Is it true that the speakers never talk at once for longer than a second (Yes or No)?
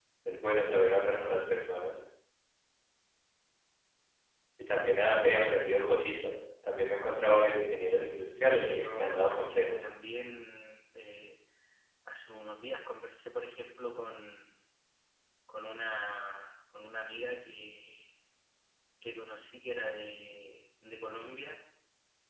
No